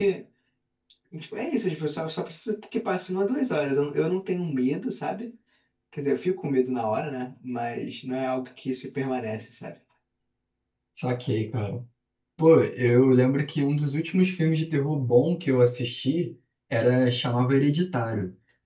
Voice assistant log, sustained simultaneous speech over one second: none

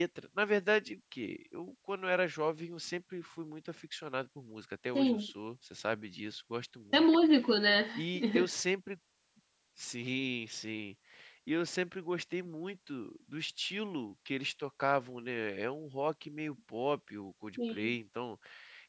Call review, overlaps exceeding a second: none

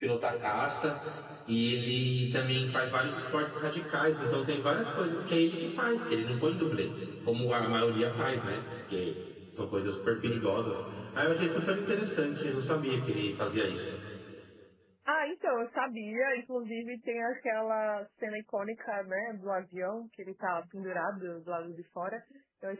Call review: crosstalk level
none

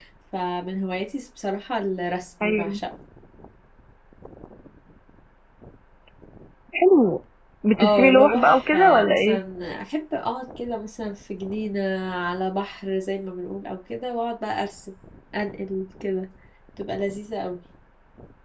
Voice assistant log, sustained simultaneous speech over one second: present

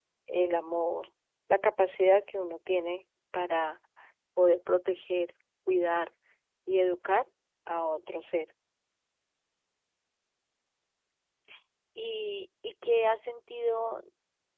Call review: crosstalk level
none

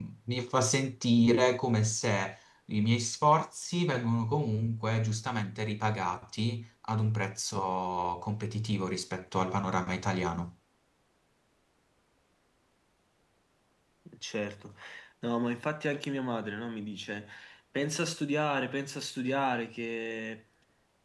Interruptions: none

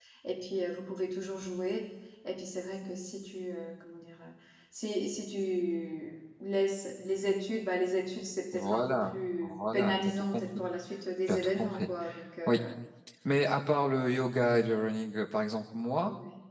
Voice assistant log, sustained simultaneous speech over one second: present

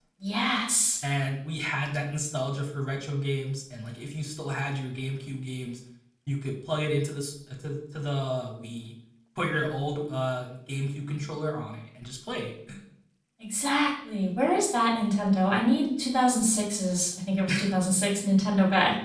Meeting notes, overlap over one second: none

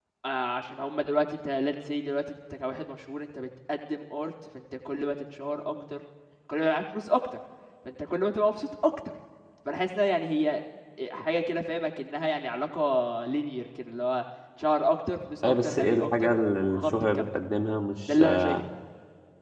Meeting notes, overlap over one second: present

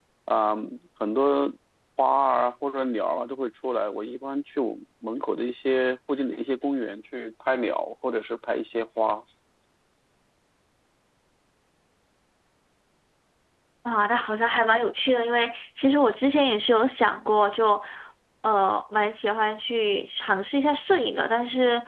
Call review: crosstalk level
none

